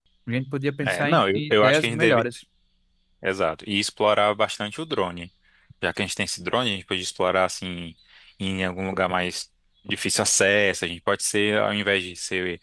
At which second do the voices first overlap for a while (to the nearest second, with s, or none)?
1 s